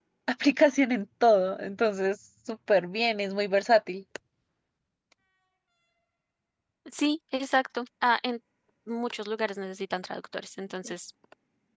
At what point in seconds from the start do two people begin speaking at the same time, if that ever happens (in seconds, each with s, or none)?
none